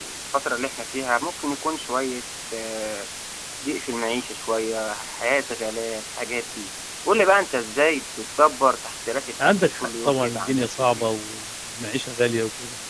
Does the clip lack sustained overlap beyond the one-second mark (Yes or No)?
No